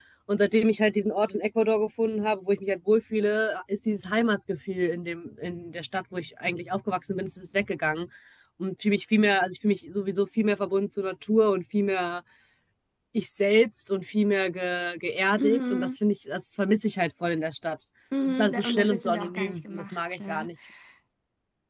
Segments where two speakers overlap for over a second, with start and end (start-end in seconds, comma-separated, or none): 18.3-20.5